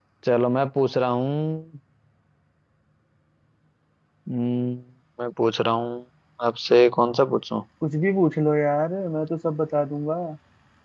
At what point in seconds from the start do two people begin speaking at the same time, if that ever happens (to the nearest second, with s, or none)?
none